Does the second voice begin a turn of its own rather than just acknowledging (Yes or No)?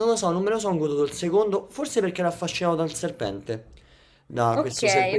No